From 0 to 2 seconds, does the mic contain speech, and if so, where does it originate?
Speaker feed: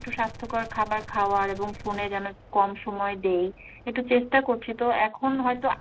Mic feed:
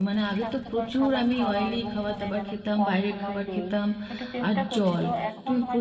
both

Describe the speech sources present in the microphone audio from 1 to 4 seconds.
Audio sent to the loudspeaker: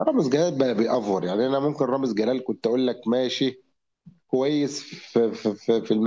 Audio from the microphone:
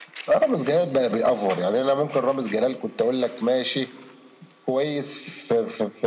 echo only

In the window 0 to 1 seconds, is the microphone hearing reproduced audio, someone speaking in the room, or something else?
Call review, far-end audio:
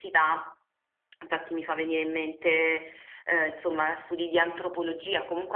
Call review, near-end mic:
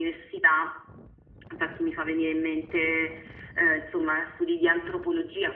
echo only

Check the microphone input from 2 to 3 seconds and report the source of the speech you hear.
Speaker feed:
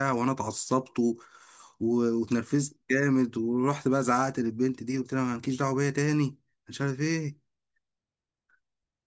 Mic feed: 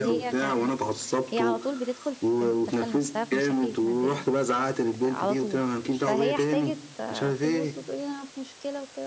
both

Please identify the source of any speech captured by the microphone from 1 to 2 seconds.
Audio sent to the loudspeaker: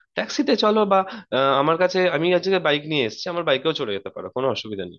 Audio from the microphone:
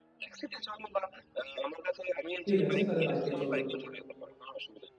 echo only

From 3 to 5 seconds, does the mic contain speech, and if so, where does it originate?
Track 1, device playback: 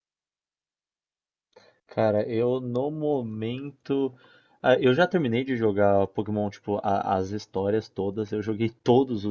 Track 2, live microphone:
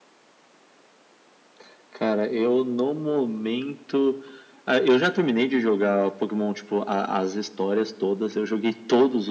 echo only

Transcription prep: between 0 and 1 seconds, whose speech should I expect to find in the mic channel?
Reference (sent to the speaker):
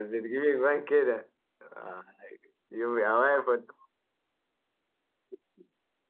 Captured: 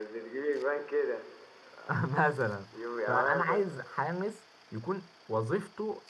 echo only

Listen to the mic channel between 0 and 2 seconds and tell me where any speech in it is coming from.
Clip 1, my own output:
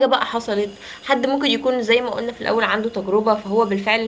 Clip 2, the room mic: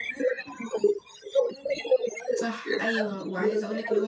echo only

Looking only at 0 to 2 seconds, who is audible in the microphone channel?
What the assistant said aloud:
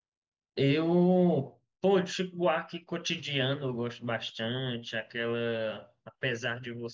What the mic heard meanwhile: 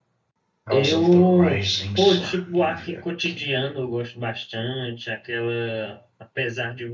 both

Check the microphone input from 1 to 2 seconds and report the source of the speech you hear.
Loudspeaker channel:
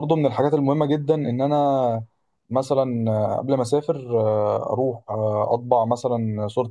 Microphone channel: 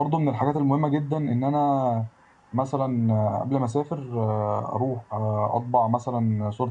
echo only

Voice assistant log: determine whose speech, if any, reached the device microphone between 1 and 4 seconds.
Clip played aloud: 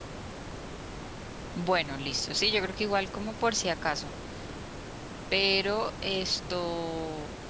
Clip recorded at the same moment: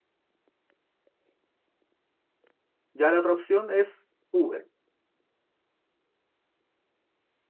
user only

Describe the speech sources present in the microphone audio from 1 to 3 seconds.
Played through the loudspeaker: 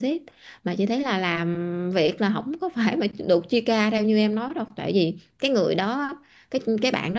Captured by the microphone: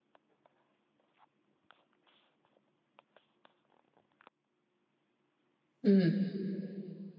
neither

